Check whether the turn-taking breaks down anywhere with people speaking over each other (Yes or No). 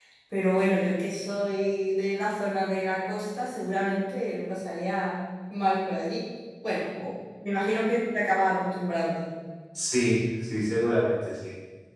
No